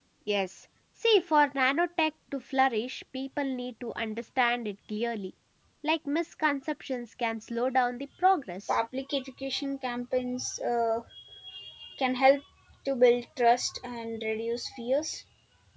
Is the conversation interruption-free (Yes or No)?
Yes